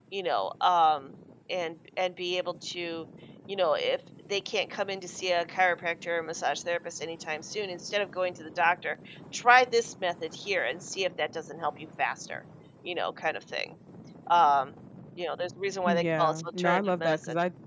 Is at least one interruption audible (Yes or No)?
Yes